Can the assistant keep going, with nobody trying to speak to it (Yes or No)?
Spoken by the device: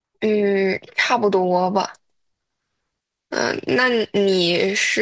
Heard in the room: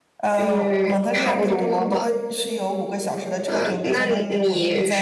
No